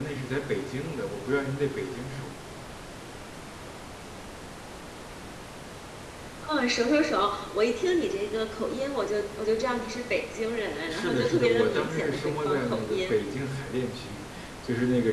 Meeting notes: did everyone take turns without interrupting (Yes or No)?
No